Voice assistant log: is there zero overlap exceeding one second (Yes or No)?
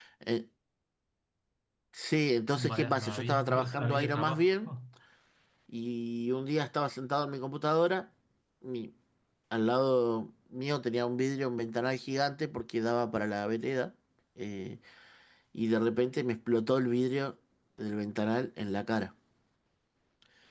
No